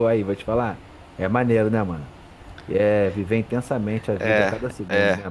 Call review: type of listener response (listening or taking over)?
taking over